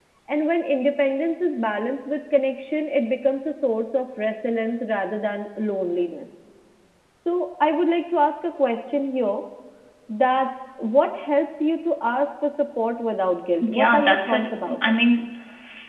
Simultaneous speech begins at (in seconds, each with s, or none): 13.6 s